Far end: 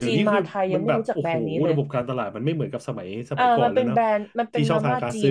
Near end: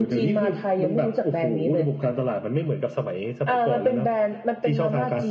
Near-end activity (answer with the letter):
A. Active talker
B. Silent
B